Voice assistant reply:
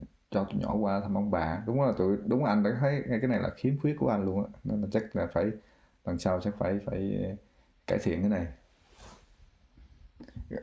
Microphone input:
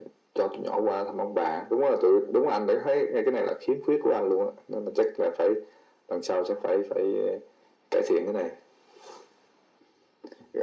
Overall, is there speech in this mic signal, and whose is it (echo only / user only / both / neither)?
echo only